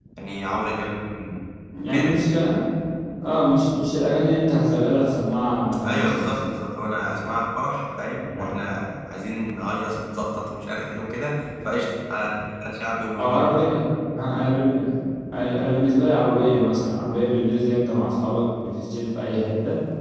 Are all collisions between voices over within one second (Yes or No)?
Yes